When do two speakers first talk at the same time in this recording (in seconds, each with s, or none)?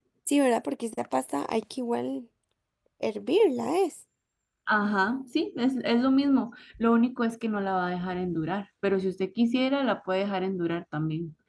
none